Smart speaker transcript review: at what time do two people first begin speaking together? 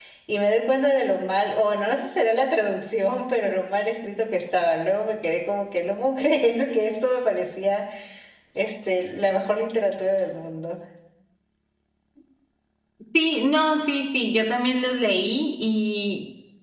none

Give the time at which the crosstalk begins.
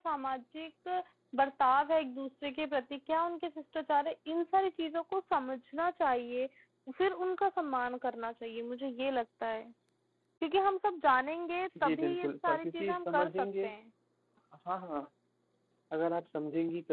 11.8 s

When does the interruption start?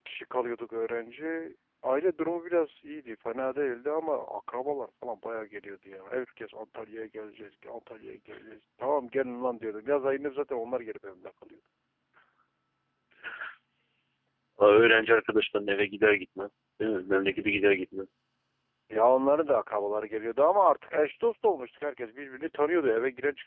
none

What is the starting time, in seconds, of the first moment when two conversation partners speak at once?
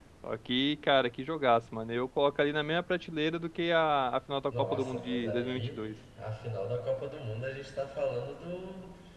4.5 s

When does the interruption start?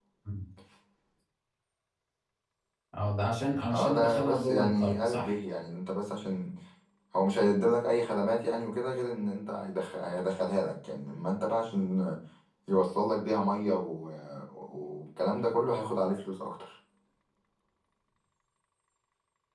3.7 s

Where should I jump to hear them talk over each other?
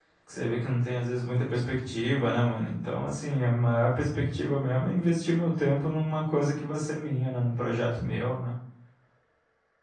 none

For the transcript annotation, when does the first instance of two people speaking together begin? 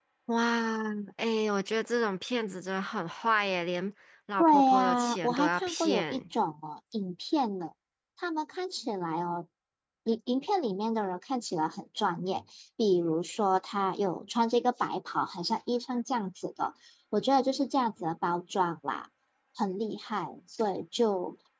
4.4 s

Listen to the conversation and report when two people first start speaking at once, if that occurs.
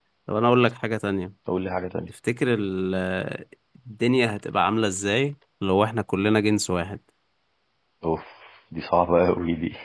none

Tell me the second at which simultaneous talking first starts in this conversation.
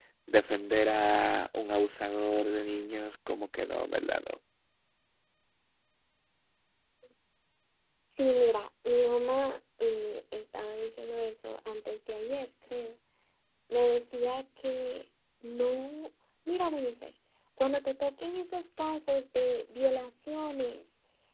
none

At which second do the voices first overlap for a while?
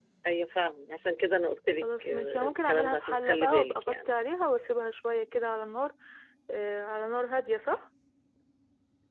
1.8 s

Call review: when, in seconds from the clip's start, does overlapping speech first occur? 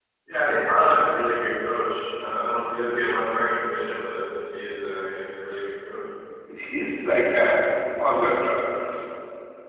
none

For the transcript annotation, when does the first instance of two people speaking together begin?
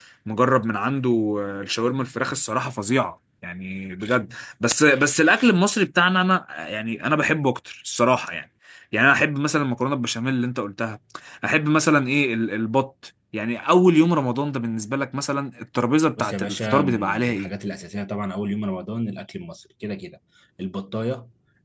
16.2 s

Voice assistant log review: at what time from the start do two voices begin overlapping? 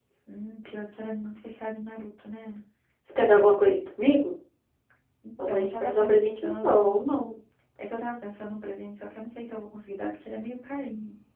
5.5 s

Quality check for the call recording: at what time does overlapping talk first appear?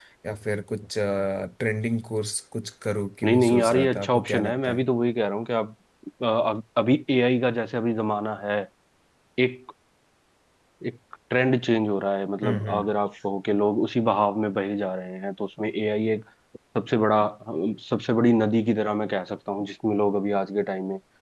3.2 s

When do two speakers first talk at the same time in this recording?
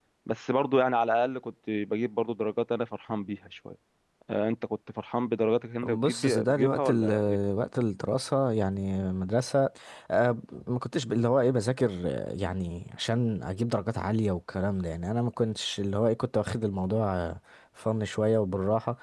5.8 s

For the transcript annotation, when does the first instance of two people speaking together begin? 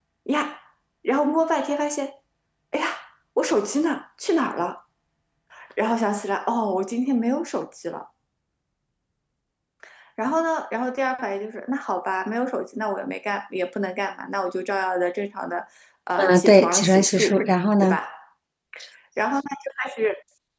16.2 s

